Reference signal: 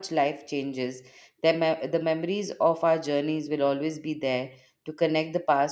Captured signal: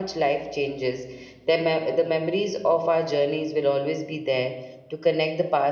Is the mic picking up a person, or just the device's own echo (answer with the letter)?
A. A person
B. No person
B